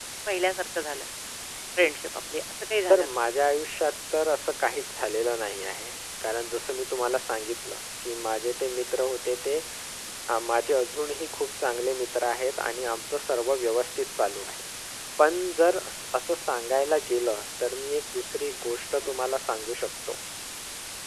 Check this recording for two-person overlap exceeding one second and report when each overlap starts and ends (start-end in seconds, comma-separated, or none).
none